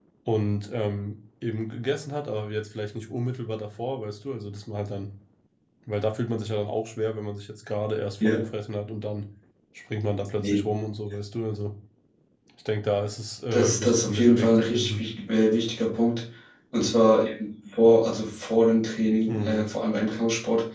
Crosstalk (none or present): present